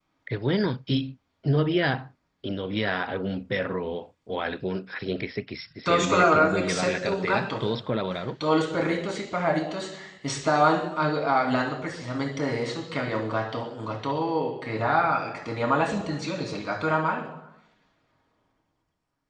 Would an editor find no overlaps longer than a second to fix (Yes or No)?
No